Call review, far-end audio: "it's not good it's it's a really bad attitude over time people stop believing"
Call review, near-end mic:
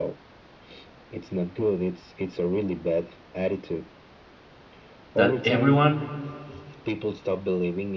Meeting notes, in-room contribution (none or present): present